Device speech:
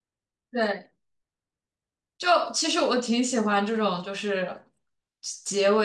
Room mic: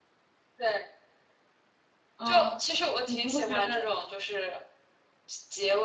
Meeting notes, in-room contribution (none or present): present